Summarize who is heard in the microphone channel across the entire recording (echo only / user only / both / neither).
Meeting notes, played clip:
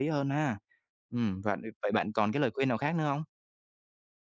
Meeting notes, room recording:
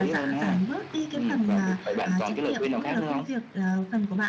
both